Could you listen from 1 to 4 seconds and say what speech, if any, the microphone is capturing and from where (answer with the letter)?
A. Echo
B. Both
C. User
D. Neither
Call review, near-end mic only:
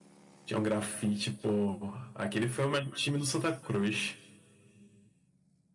C